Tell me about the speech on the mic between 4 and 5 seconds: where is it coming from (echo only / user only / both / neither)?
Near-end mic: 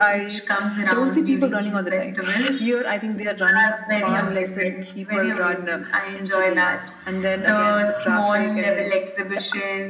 both